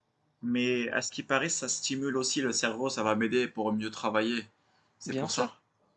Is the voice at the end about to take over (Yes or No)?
Yes